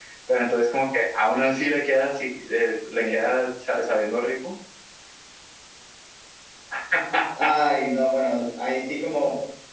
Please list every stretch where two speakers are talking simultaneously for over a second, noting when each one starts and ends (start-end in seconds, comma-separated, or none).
none